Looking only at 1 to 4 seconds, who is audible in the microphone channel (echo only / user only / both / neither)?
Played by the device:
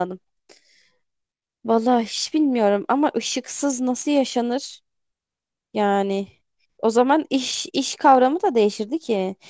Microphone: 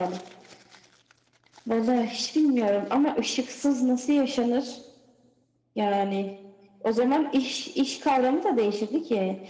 echo only